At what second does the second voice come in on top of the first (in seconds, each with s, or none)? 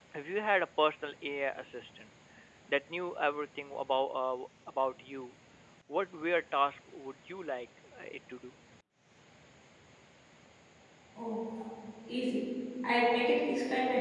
none